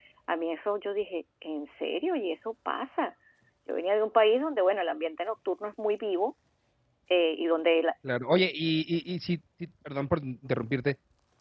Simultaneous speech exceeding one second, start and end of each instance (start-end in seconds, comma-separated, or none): none